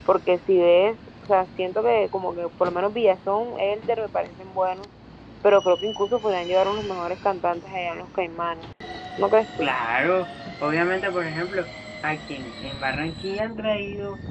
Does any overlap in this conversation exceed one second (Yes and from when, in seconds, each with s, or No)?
No